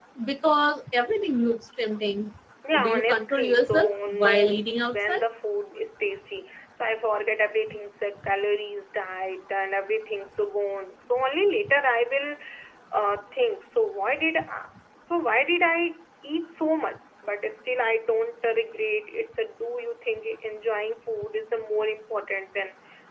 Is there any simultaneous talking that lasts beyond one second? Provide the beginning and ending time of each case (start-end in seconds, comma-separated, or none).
2.8-5.2